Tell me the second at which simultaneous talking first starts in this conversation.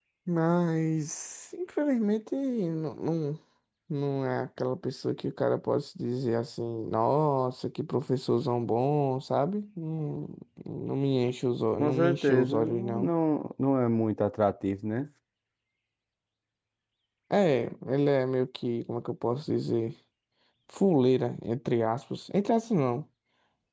11.8 s

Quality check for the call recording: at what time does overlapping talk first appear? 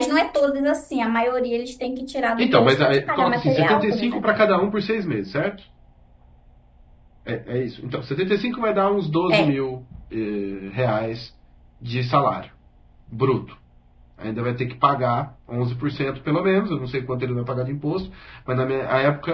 2.4 s

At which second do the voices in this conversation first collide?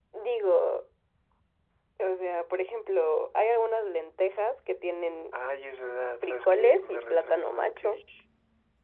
6.2 s

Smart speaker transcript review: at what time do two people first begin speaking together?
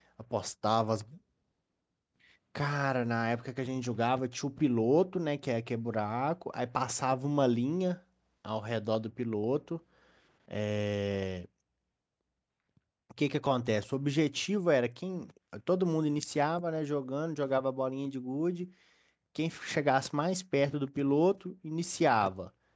none

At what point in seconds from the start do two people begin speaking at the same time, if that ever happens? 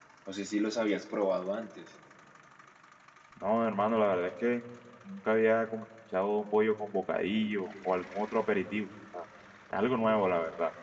none

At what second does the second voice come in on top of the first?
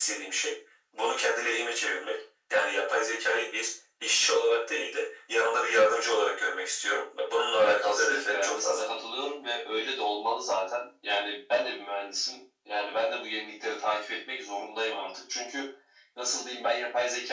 7.6 s

